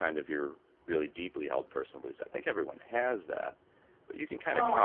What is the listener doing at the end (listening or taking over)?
listening